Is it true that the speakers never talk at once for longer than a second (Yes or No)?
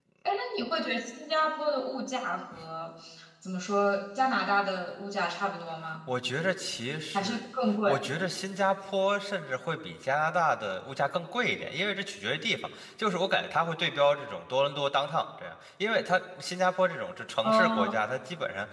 Yes